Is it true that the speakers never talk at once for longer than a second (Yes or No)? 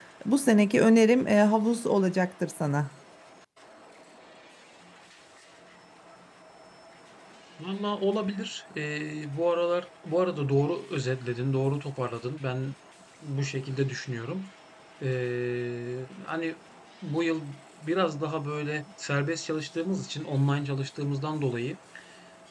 Yes